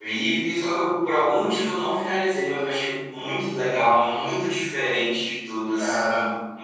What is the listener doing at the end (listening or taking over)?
listening